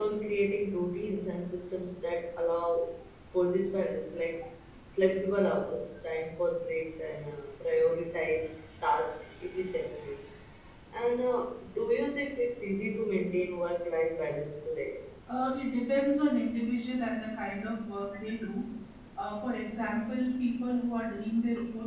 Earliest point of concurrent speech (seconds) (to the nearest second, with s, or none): none